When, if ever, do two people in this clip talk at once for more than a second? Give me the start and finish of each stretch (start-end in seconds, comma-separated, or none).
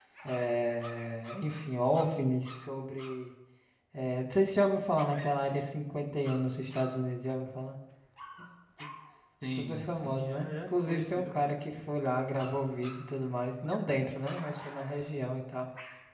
9.4-11.5